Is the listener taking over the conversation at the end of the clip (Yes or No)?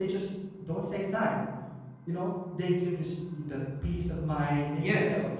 Yes